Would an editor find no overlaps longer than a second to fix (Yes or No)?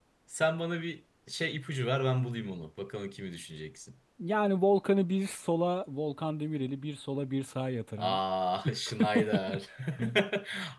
Yes